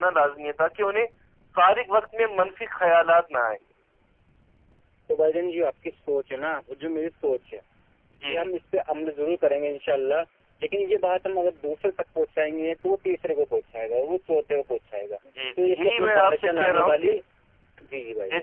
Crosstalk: present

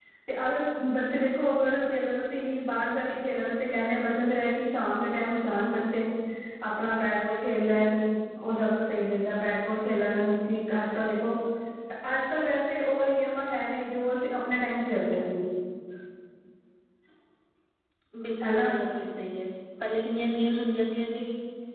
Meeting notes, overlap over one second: none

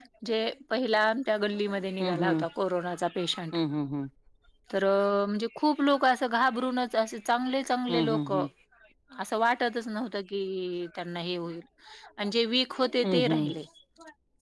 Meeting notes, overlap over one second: none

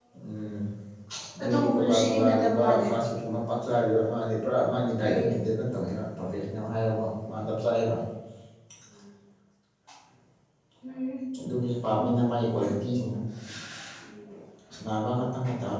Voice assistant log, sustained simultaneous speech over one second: present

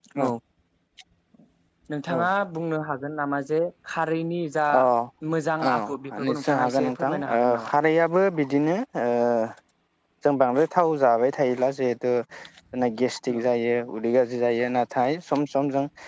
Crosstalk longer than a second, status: present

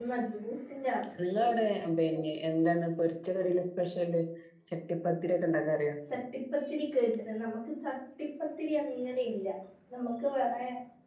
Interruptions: none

